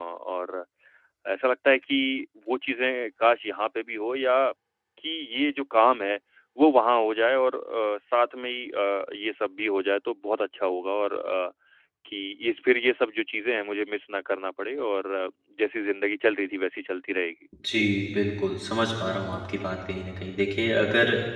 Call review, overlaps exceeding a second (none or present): none